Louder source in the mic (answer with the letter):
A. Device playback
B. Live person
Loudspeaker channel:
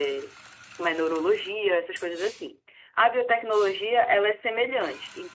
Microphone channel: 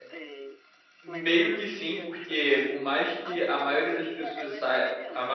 B